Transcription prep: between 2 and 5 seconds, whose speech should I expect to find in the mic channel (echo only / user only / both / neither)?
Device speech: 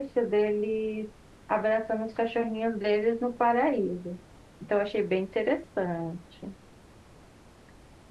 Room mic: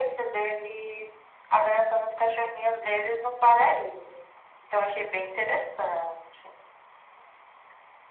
echo only